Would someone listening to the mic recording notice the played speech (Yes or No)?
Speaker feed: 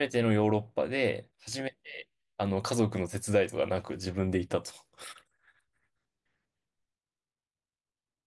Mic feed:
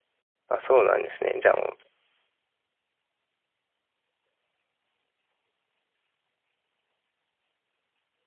No